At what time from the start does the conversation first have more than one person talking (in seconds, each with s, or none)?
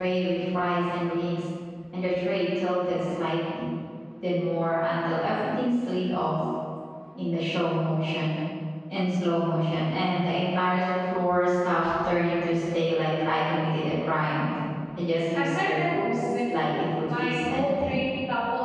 15.3 s